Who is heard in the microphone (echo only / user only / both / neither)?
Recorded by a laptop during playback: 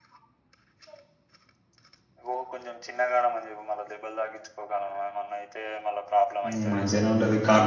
both